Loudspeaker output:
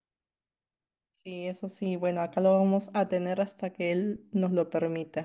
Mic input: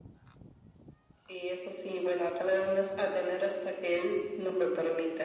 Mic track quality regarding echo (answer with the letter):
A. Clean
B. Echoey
B